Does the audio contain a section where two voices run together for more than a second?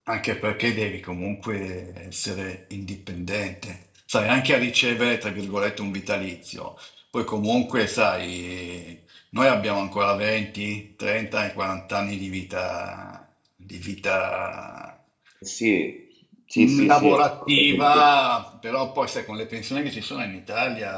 Yes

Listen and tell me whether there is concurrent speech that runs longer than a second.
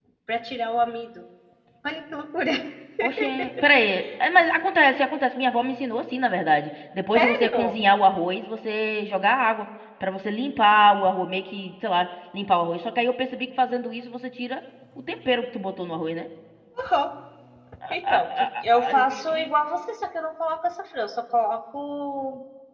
Yes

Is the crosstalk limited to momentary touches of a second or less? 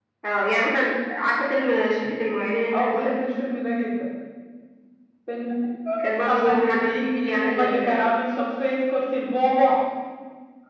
No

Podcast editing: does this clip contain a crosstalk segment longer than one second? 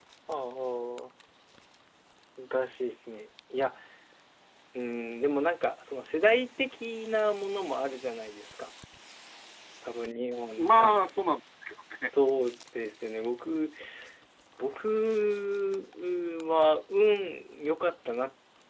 No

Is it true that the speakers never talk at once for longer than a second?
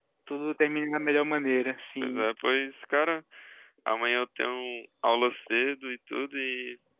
Yes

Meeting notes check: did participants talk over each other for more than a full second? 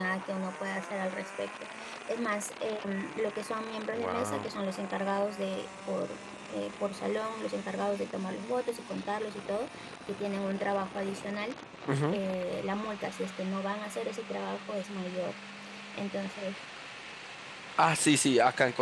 No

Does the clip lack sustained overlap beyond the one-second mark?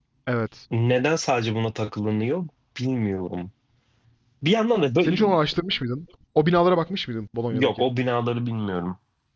Yes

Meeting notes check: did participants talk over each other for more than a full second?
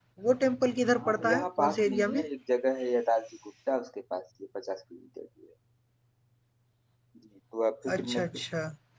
Yes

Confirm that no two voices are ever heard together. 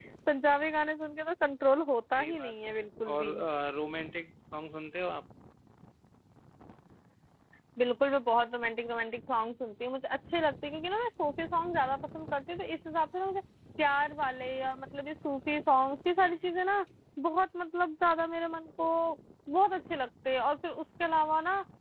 No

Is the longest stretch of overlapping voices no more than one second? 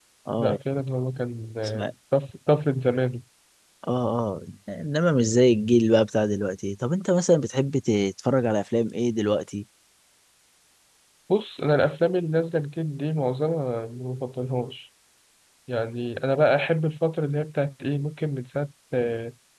Yes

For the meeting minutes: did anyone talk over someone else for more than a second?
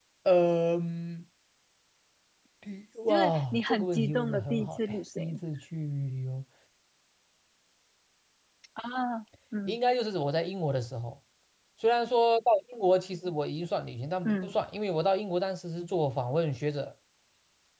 Yes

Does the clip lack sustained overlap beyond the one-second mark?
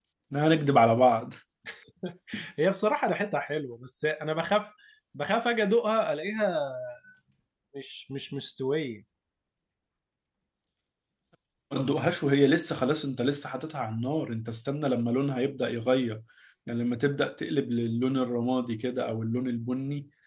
Yes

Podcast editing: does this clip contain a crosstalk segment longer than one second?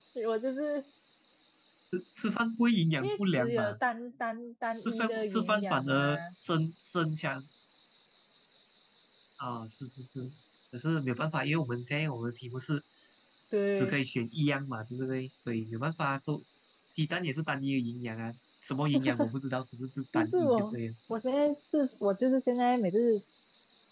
Yes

